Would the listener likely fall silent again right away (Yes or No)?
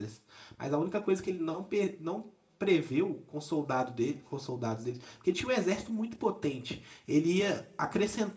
Yes